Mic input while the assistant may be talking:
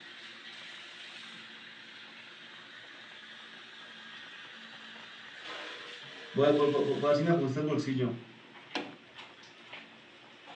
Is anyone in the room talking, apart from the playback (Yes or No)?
Yes